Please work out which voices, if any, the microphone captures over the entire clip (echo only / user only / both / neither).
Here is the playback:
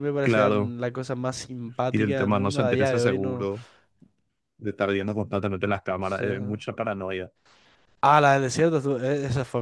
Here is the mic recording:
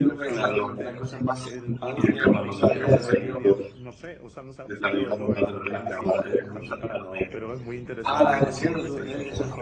both